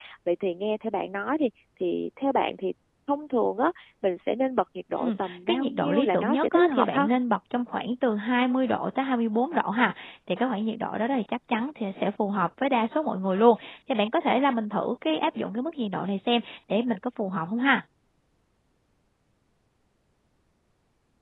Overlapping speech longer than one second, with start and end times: 5.0-7.1

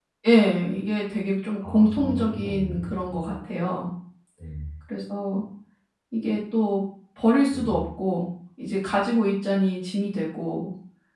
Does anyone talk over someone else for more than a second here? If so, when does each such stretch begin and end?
1.7-3.2

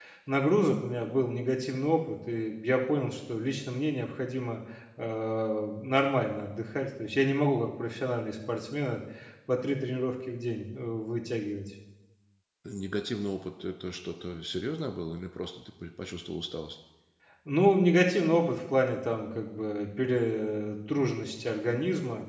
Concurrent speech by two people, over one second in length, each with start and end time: none

